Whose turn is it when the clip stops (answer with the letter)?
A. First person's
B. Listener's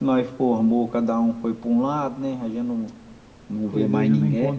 B